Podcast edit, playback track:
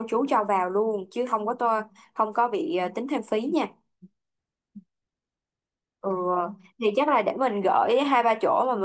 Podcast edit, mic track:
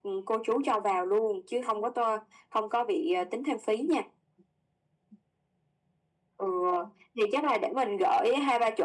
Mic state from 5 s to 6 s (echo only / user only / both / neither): neither